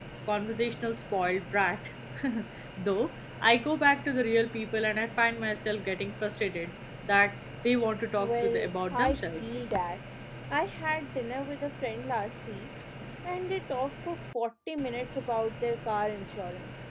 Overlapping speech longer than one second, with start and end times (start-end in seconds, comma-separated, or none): 8.2-9.5